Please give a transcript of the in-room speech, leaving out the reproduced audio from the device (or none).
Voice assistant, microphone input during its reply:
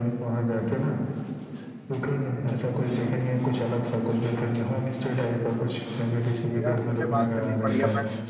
तो यार मुझे बात करनी पड़ेगी अपना